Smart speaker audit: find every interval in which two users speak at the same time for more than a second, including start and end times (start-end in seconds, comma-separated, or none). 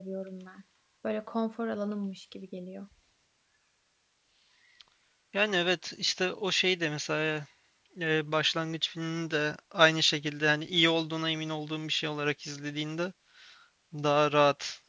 none